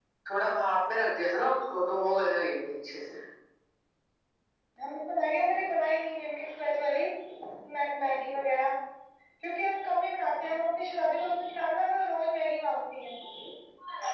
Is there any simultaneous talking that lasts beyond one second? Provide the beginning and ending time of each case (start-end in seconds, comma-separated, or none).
none